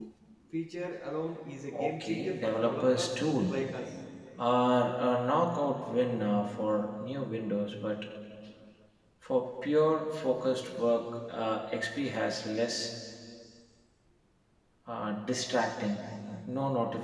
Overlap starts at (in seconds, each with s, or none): 1.7 s